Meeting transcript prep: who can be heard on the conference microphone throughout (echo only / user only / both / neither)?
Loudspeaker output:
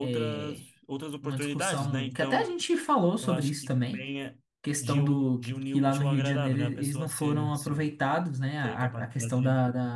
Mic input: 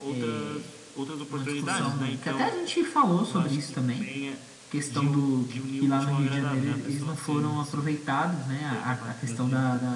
both